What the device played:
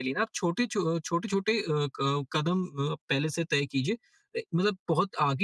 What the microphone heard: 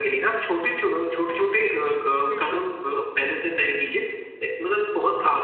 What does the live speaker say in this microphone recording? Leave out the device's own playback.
हुँ,

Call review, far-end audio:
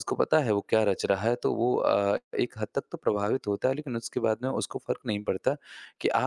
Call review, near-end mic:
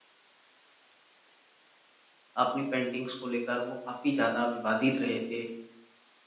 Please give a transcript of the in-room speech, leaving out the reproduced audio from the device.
अपनी पेंटिंग्स को लेकर वो काफ़ी ज़्यादा विवादित रहे थे

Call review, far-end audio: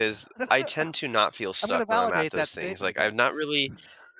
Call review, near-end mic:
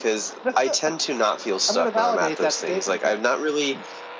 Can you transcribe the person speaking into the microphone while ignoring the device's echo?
none

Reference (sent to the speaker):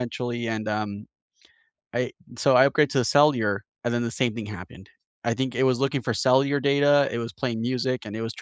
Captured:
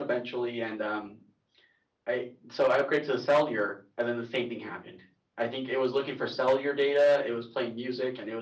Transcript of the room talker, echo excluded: none

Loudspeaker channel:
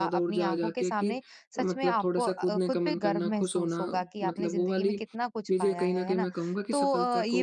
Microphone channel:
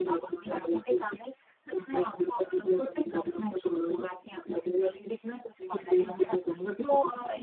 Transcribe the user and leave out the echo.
हुँ।

